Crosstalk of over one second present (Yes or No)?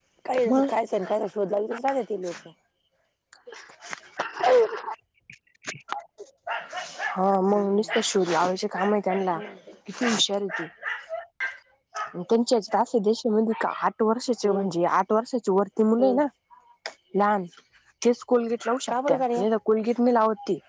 No